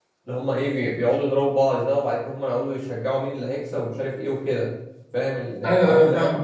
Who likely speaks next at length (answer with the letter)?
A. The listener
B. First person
A